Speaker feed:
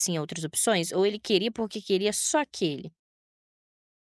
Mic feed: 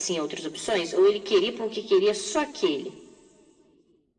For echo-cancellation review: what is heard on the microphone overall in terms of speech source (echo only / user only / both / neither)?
echo only